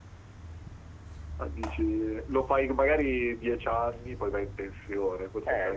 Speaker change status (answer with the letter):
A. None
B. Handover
A